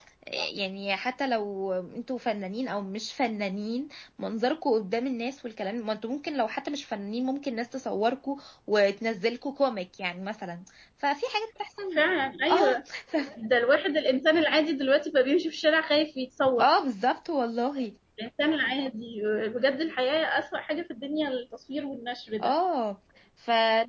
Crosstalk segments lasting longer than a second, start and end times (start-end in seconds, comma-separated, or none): none